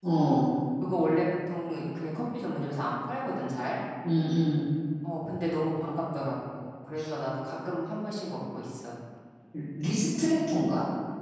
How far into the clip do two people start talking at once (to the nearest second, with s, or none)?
none